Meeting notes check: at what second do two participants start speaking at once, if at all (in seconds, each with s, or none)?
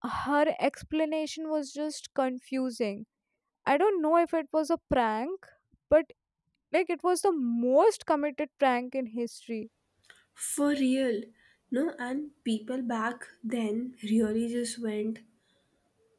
none